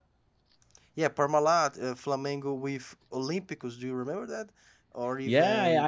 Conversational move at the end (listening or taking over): taking over